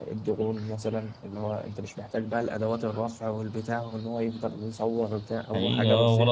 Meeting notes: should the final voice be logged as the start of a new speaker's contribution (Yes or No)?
Yes